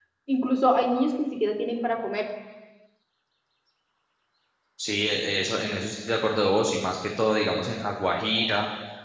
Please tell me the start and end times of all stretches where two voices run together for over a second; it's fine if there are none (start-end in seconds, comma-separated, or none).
none